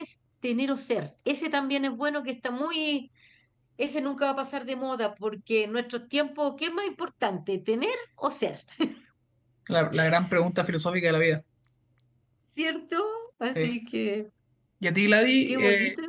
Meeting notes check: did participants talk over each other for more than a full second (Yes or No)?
No